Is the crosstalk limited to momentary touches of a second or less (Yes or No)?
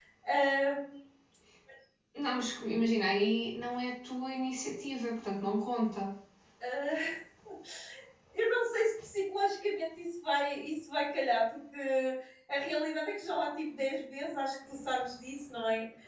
Yes